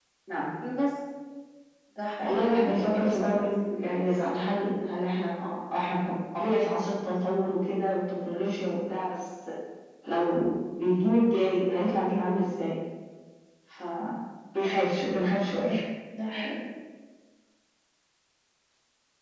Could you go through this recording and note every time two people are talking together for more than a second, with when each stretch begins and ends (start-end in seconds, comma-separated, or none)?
2.2-3.4